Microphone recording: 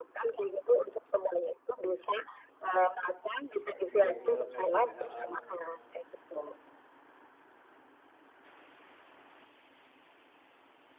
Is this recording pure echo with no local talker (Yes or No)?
No